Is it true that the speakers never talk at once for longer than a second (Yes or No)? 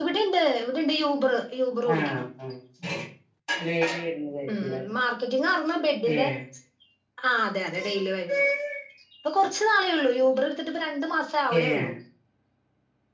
Yes